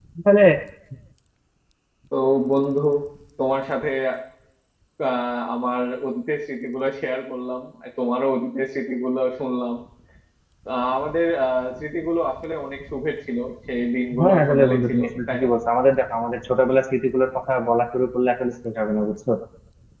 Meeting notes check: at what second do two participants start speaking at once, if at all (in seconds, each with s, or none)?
14.1 s